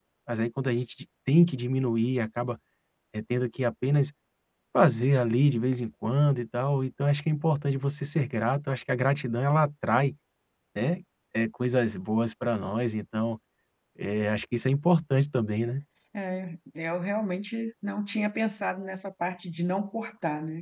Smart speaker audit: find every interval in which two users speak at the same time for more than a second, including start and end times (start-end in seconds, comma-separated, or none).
none